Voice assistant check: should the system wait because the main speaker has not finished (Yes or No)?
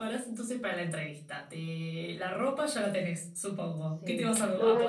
No